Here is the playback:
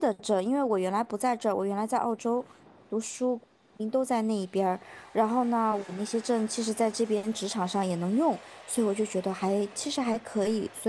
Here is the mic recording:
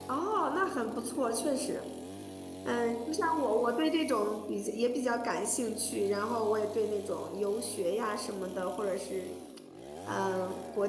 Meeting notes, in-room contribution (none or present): present